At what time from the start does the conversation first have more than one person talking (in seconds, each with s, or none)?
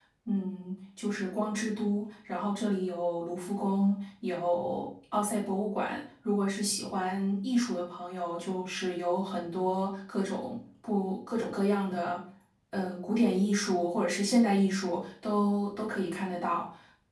none